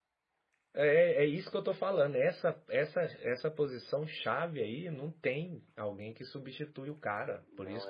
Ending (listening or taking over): listening